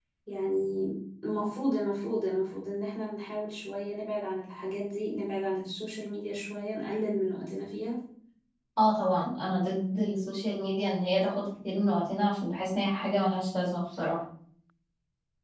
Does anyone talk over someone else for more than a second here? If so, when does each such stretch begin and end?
none

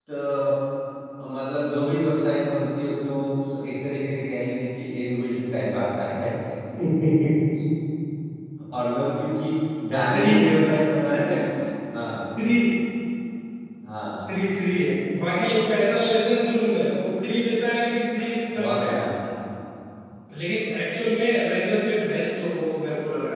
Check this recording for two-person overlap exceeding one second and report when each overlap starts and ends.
none

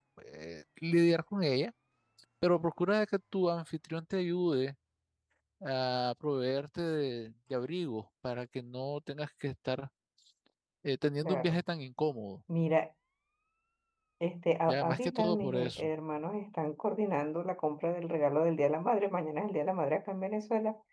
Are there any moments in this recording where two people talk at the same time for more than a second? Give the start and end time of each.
14.7-15.9

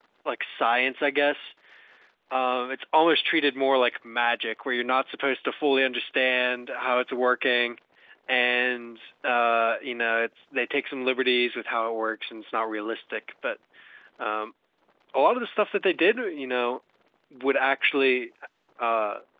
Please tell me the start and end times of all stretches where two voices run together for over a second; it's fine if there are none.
none

